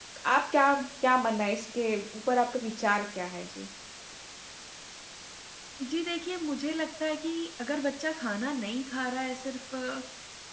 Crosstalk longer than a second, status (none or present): none